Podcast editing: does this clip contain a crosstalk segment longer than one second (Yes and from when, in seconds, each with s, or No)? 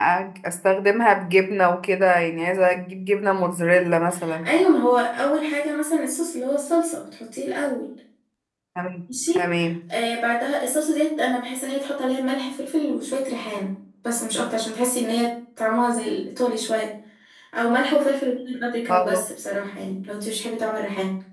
No